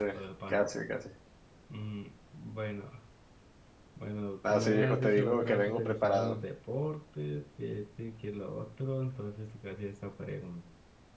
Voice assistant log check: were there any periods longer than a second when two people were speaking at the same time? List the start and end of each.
4.5-6.4

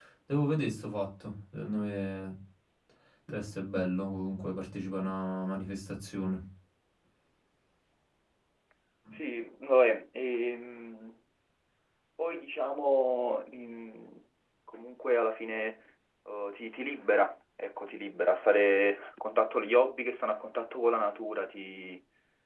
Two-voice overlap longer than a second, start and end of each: none

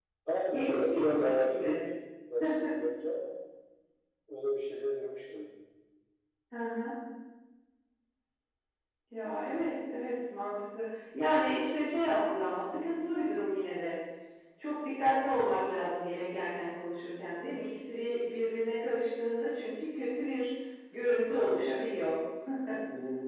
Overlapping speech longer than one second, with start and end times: 0.5-1.8

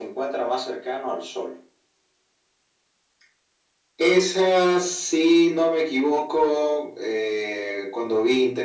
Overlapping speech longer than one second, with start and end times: none

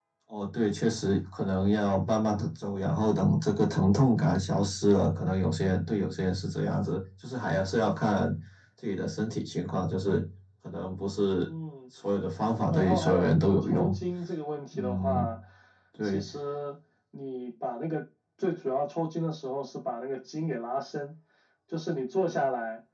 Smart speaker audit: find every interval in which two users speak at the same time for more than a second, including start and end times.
12.5-14.0

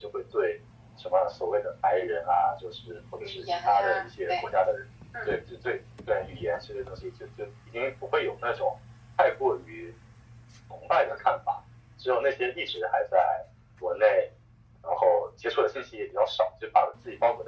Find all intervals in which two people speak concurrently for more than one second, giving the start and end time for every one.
3.2-4.4

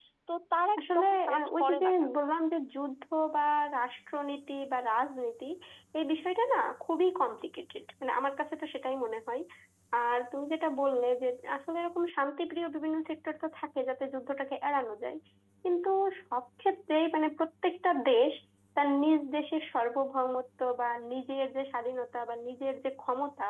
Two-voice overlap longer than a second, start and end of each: 0.8-2.1

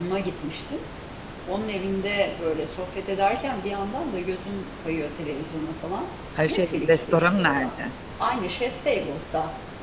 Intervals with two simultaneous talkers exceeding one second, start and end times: 6.5-7.7

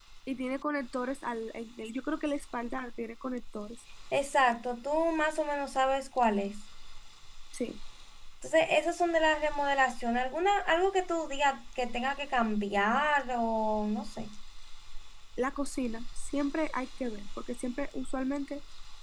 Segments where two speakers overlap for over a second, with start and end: none

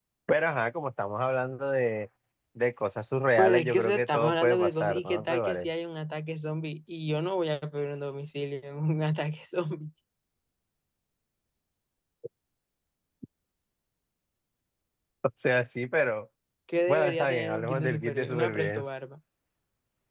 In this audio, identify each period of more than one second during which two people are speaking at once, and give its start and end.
3.4-5.7, 16.9-18.8

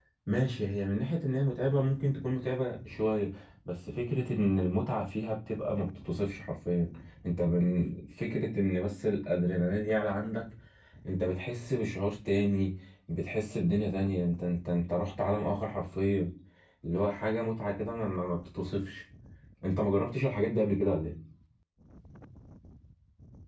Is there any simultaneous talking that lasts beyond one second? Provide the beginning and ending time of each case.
none

